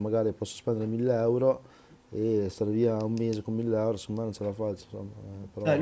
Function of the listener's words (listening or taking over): taking over